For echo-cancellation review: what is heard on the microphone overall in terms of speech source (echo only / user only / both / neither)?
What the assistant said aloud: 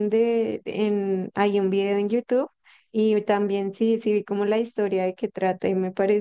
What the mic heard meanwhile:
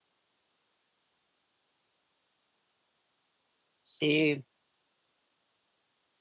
user only